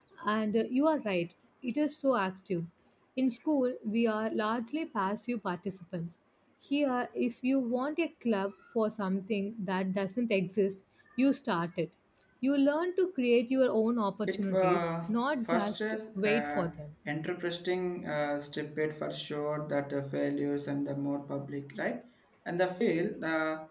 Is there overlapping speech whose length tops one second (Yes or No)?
Yes